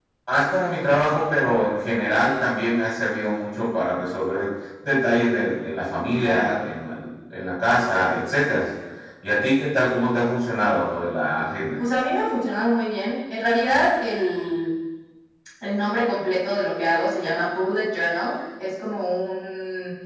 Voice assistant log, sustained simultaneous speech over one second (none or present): none